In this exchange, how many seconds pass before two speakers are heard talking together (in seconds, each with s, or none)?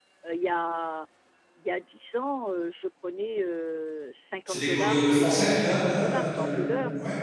4.5 s